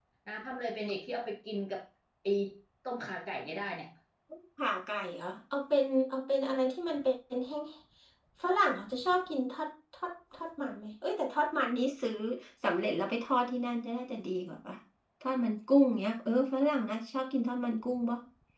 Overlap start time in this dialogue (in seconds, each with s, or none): none